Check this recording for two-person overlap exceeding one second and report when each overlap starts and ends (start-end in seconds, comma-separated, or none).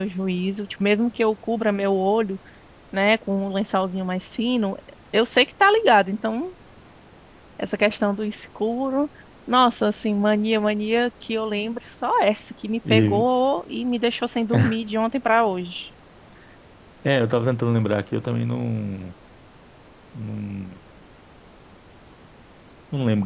none